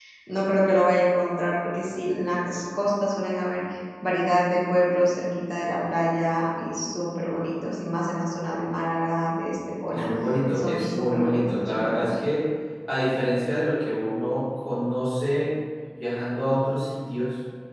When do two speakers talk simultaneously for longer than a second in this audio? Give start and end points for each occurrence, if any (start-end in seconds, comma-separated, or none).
10.5-12.1